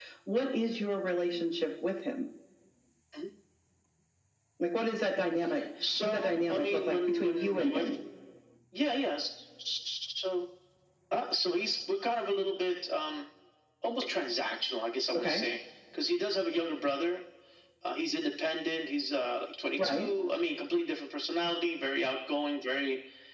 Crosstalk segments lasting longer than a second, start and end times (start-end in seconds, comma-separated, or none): 6.0-7.9